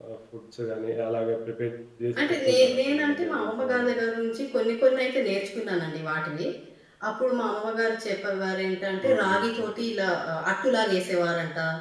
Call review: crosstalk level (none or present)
present